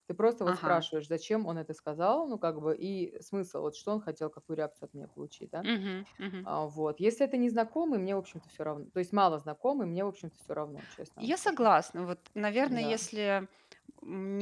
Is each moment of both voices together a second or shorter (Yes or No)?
Yes